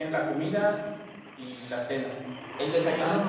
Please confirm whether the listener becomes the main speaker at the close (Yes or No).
No